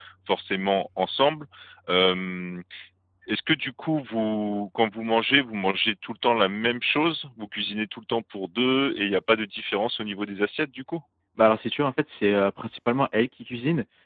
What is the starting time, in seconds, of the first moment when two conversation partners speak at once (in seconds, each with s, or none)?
none